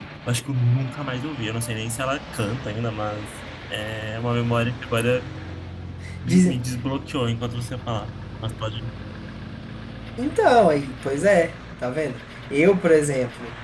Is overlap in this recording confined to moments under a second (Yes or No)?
Yes